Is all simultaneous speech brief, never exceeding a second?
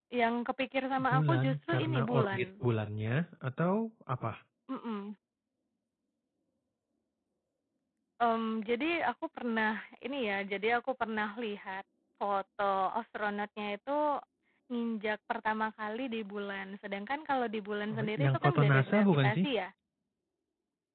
No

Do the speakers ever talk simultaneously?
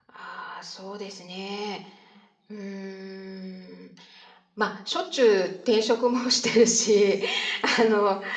No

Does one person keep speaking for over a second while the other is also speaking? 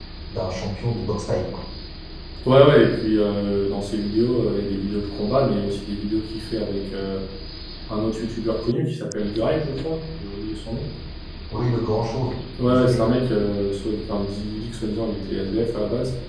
No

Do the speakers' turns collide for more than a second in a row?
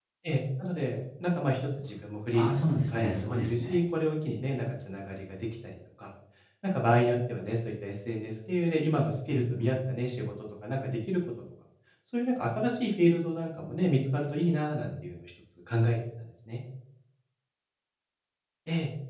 Yes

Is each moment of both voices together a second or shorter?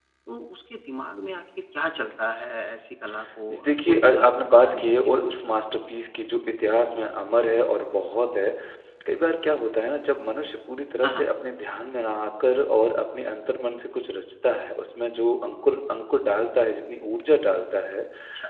No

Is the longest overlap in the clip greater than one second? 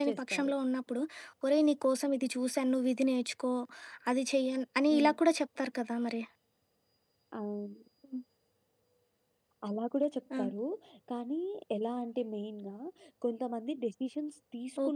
No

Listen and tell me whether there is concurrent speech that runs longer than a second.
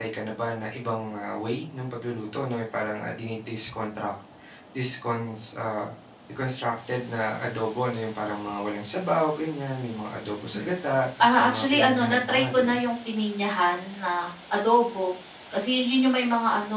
Yes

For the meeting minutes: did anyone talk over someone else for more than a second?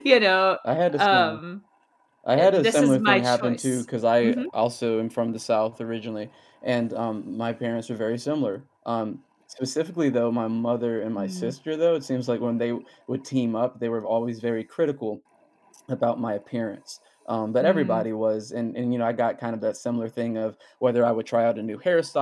Yes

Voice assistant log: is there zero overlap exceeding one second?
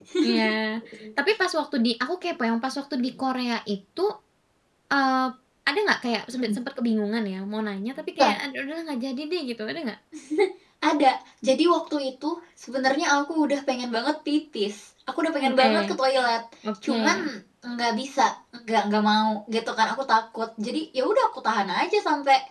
Yes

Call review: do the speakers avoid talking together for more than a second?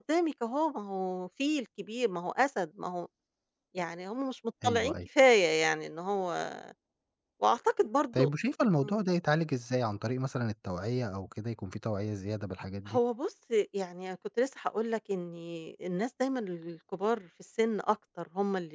Yes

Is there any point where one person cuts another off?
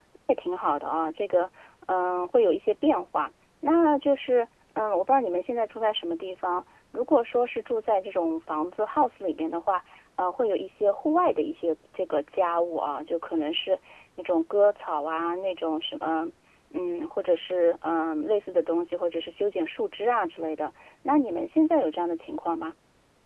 No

